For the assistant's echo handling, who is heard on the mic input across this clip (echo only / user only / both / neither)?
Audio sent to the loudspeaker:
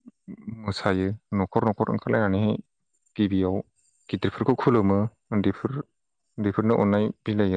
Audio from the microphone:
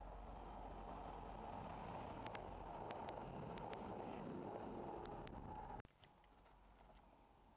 neither